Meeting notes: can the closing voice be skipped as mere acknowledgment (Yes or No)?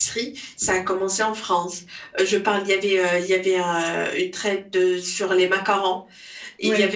Yes